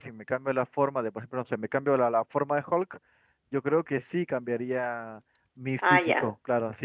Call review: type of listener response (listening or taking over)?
taking over